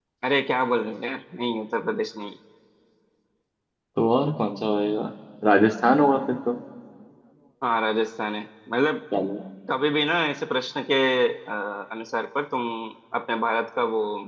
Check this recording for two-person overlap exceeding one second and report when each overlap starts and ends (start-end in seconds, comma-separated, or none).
none